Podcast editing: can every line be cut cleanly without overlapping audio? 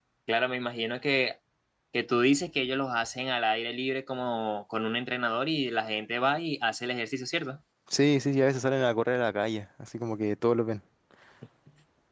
Yes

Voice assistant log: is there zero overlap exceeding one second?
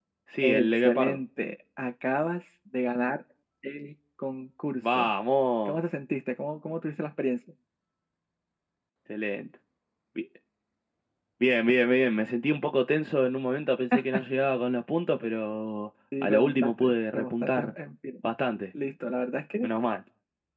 No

